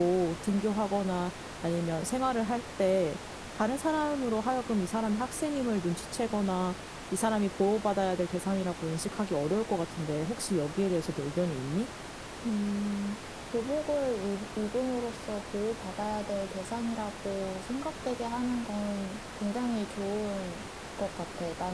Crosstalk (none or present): none